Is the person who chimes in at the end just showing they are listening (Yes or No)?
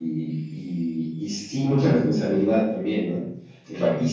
Yes